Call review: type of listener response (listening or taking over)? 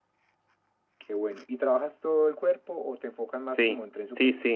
taking over